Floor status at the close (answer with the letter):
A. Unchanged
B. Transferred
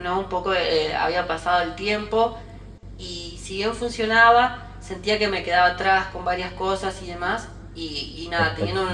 A